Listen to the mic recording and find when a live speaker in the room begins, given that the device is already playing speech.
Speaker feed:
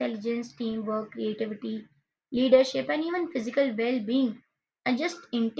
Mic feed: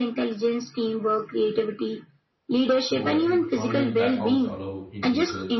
2.8 s

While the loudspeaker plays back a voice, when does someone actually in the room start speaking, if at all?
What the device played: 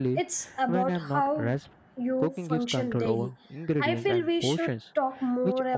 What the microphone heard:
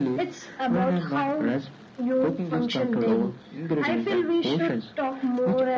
none

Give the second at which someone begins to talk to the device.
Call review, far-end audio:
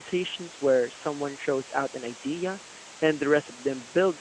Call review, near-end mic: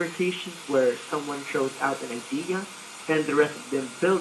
none

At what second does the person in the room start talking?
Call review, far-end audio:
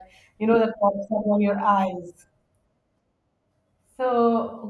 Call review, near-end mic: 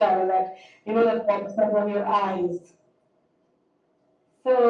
none

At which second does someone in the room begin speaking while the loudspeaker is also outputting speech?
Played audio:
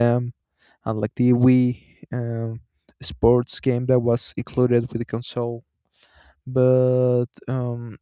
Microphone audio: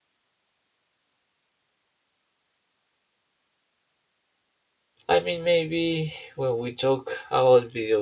5.1 s

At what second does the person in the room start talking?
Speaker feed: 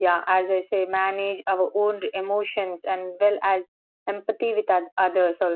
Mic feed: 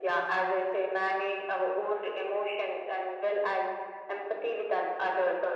none

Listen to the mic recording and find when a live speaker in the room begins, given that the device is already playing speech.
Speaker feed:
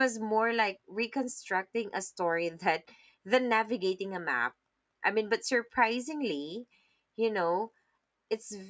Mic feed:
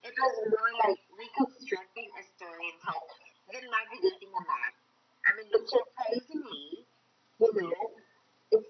none

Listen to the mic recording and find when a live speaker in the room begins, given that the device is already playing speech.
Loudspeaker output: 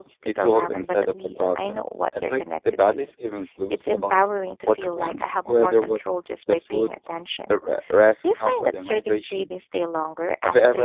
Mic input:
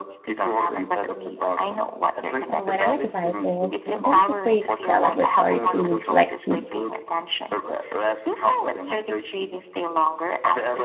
2.5 s

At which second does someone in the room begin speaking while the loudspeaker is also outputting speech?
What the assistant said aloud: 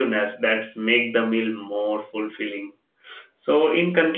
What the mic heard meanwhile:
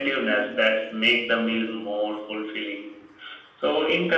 none

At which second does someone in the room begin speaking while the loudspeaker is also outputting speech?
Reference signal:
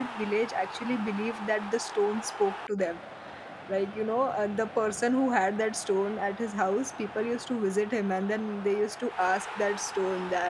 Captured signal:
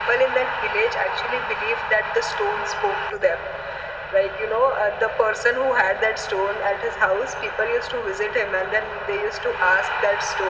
none

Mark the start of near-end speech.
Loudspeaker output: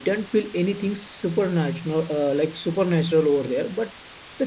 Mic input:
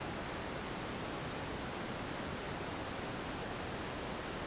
none

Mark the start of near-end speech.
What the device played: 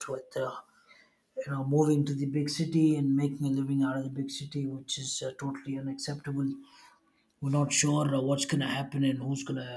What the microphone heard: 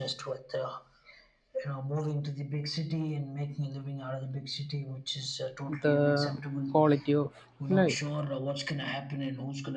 5.7 s

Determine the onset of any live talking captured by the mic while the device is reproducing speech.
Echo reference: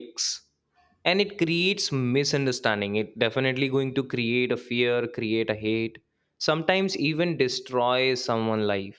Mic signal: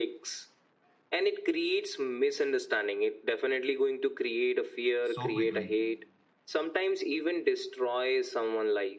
5.0 s

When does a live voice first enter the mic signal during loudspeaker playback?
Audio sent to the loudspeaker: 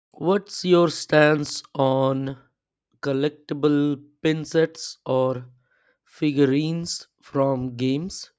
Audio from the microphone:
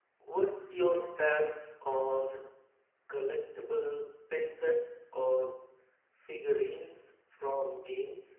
none

